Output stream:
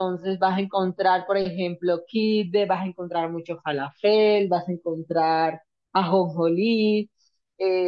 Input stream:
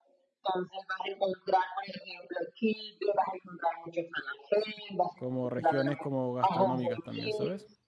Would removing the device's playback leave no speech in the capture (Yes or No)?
No